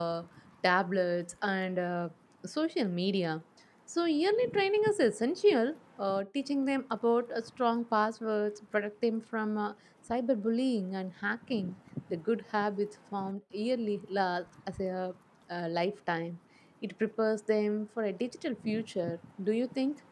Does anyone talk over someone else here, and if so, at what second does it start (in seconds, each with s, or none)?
none